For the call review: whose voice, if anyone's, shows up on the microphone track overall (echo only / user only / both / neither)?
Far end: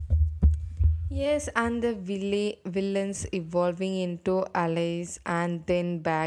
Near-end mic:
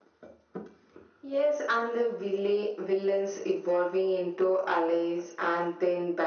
echo only